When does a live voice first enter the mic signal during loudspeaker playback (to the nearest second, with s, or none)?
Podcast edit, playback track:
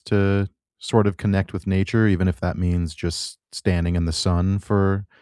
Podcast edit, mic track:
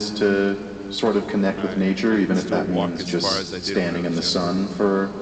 2 s